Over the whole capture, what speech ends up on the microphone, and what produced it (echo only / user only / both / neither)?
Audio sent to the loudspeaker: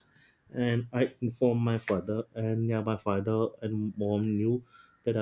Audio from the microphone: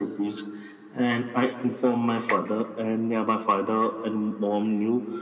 echo only